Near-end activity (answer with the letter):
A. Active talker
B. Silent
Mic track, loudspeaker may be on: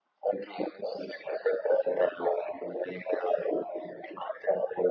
B